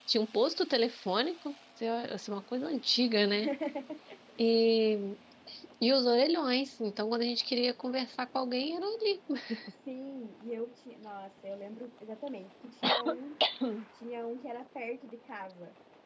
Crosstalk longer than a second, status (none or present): none